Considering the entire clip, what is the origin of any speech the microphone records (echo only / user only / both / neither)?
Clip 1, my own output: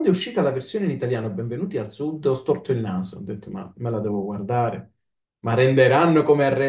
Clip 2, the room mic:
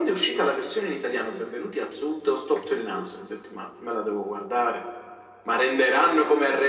echo only